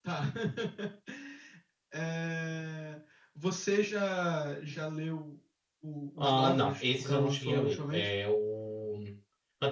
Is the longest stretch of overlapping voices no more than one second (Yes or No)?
No